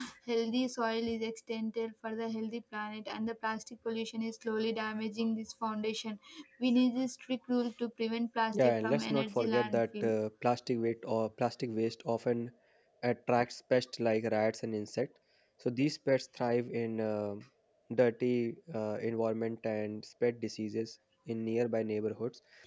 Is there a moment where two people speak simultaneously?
Yes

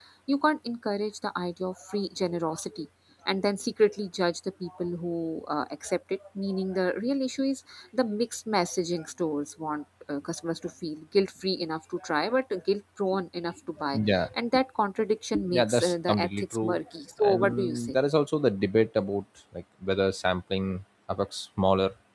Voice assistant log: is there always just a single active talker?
No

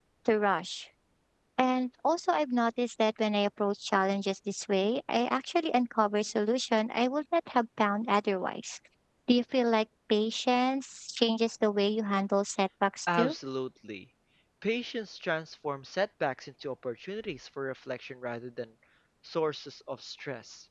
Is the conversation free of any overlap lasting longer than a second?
Yes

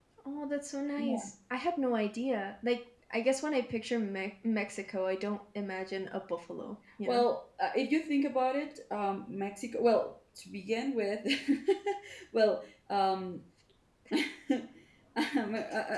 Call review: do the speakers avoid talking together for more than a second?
Yes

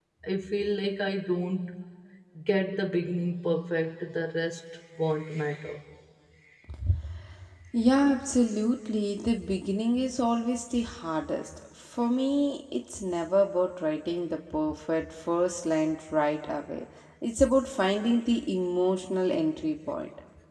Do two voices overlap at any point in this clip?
No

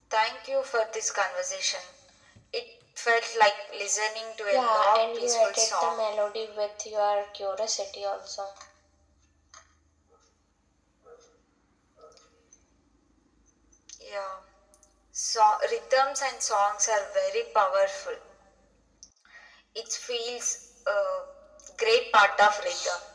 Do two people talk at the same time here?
Yes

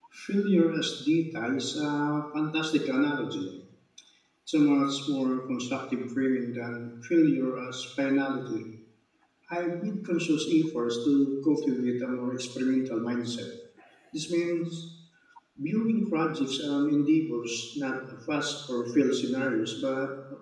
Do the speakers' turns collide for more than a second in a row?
No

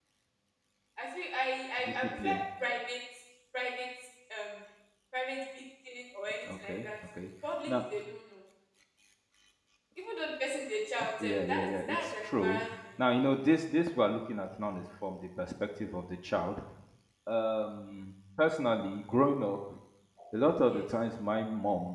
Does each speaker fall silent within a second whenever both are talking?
No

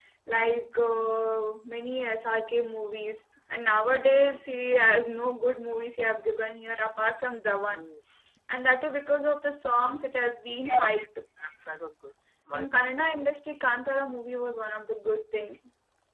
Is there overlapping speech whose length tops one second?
No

